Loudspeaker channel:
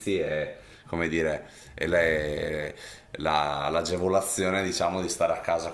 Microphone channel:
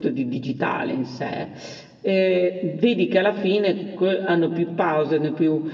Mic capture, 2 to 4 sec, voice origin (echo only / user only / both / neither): user only